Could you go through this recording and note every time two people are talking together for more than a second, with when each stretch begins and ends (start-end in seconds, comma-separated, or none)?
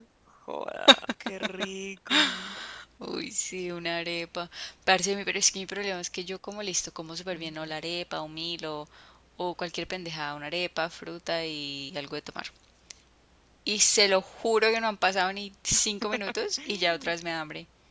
none